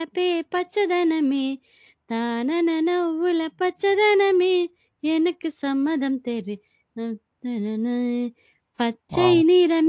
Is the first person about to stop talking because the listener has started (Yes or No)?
No